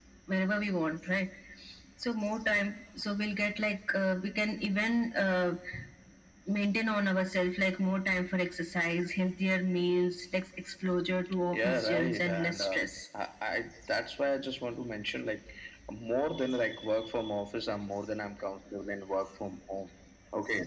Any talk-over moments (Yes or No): Yes